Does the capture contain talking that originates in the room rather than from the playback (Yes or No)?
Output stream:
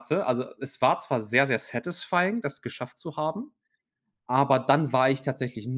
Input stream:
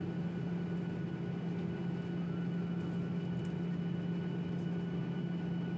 No